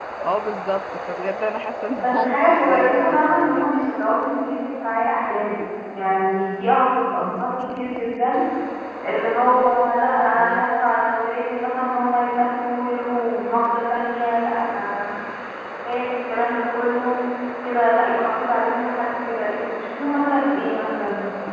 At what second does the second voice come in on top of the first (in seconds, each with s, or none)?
2.0 s